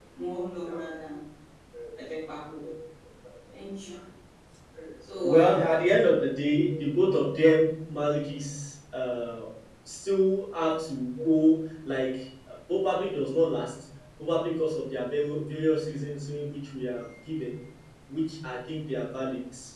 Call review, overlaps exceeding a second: none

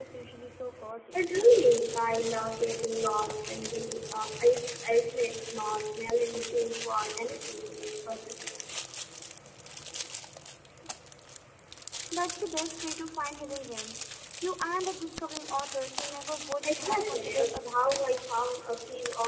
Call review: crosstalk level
present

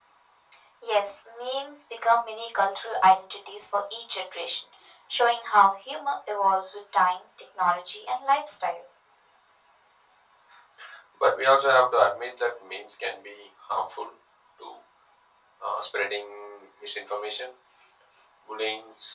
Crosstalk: none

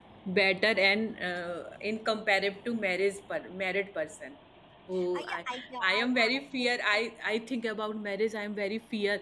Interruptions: present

